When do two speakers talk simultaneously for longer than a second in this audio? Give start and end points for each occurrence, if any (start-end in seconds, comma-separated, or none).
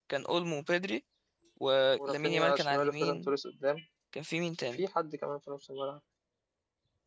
2.1-3.3